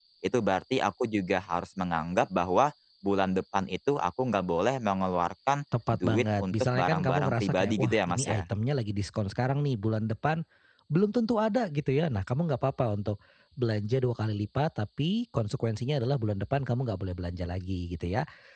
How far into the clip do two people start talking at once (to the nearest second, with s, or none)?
6 s